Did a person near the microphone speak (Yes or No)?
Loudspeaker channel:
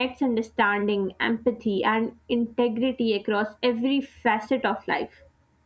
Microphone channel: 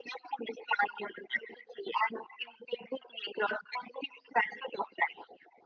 No